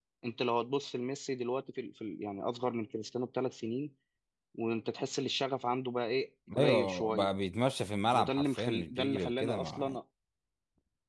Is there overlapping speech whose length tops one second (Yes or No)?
Yes